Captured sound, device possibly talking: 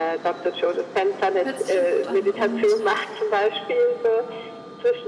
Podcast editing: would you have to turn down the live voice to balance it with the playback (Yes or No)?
No